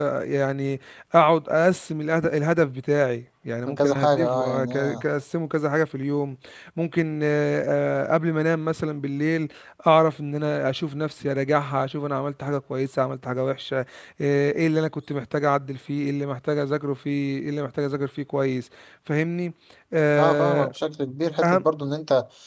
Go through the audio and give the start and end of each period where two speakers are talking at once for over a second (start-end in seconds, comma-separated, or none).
3.7-5.0